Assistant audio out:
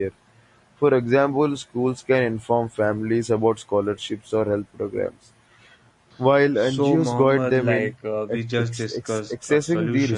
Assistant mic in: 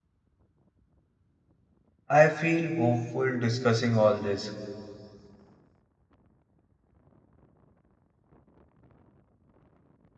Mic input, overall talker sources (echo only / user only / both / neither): user only